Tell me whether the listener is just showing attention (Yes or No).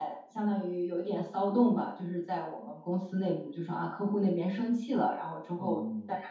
Yes